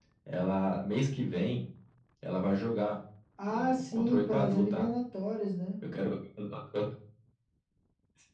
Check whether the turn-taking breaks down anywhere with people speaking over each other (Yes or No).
Yes